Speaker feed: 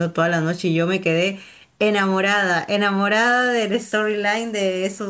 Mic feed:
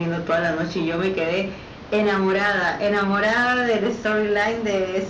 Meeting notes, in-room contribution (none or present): none